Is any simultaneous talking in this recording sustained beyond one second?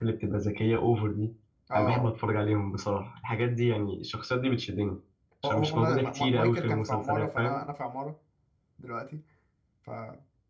Yes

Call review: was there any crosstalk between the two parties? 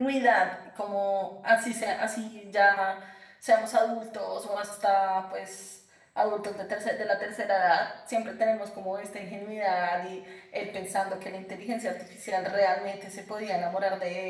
No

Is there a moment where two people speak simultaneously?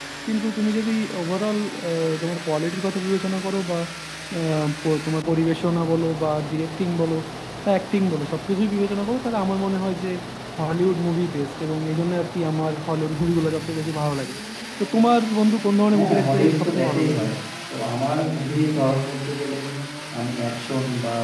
Yes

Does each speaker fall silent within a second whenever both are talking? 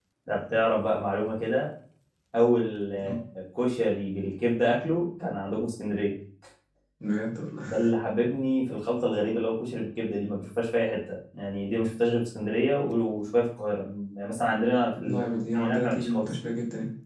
No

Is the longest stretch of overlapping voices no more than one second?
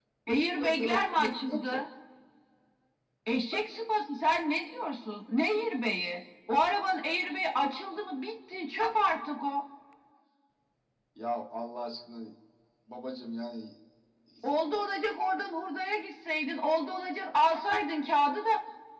No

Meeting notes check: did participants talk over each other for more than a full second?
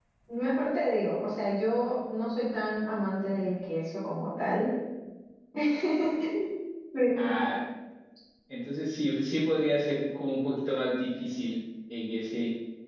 No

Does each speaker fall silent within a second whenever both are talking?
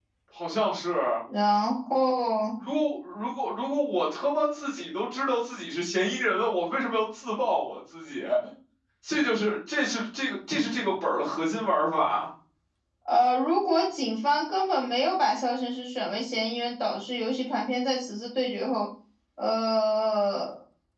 Yes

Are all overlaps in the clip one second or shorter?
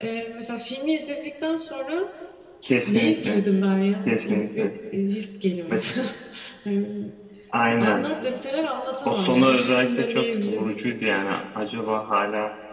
No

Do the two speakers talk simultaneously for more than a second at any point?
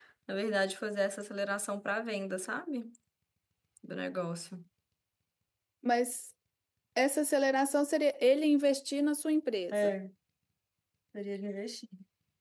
No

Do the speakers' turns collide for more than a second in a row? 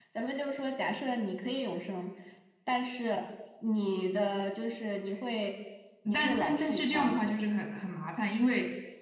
Yes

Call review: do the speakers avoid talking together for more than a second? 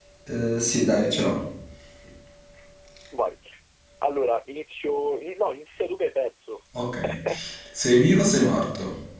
Yes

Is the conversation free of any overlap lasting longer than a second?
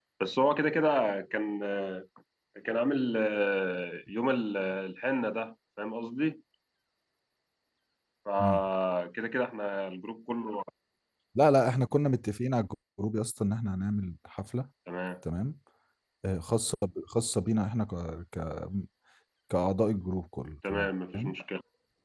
Yes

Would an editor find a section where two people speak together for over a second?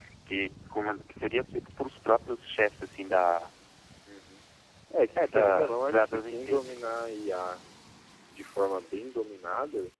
Yes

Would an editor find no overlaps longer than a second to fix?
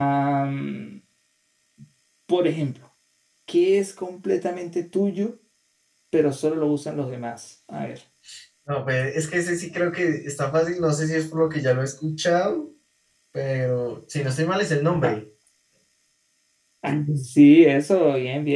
Yes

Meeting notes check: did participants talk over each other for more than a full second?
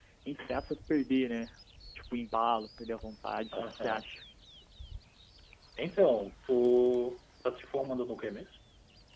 No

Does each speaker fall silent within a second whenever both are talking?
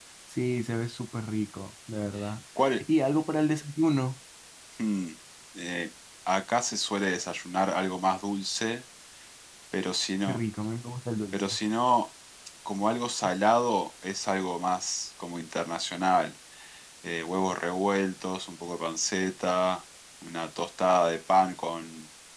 Yes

